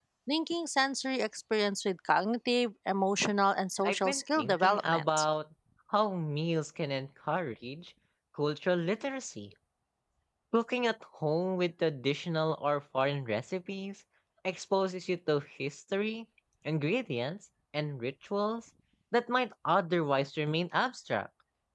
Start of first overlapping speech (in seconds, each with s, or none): 3.8 s